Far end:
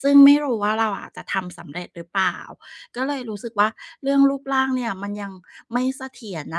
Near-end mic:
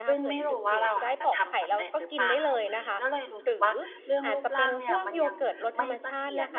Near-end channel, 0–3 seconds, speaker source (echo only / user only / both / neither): both